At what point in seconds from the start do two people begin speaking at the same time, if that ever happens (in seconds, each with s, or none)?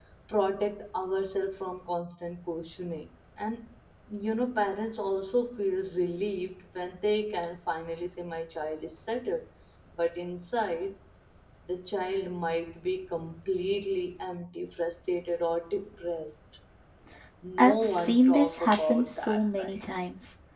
17.6 s